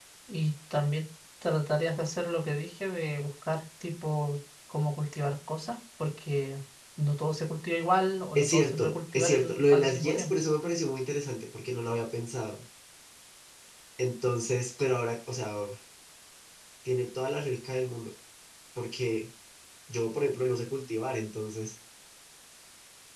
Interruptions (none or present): present